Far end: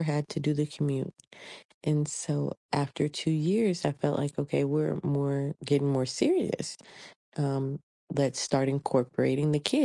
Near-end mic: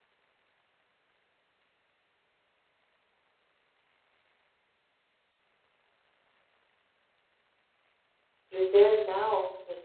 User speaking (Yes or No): Yes